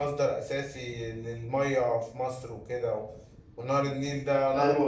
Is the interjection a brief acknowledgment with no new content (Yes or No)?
Yes